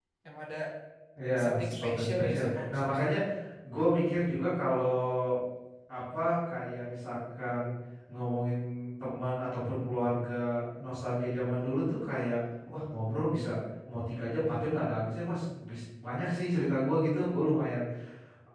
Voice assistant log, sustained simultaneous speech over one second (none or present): present